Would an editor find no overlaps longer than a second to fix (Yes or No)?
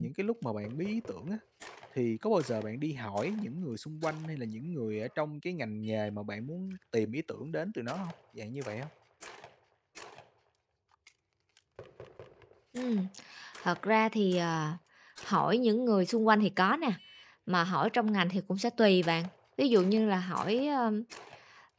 Yes